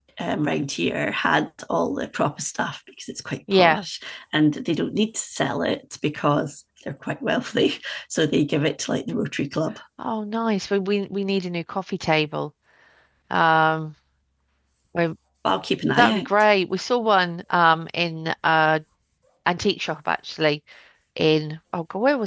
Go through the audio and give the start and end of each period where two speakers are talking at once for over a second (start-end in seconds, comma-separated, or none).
none